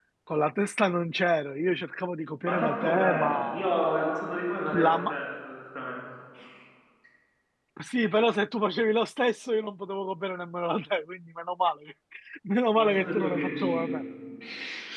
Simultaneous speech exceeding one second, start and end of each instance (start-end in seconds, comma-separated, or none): 2.4-3.7, 12.8-14.0